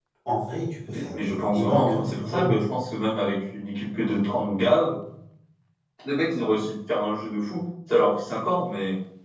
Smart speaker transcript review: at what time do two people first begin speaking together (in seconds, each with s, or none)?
0.9 s